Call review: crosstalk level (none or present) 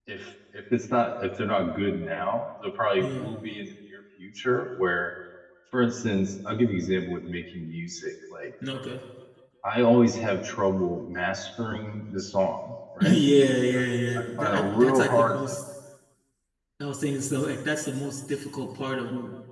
present